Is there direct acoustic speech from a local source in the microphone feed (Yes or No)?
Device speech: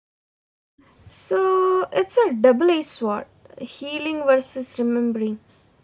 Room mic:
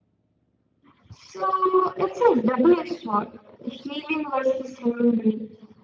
No